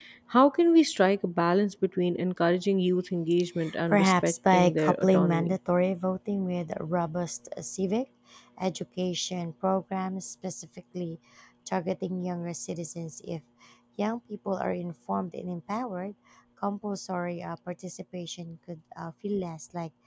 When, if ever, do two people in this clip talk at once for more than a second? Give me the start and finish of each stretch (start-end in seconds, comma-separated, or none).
3.9-5.5